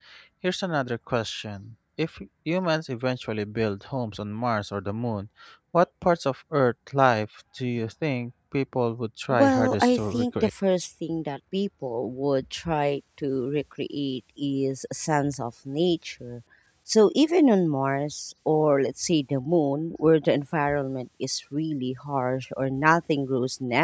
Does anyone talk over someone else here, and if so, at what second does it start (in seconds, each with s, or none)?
9.3 s